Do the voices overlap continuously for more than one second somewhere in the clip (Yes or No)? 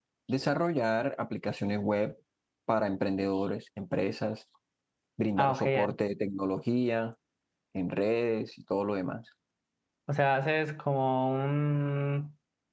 No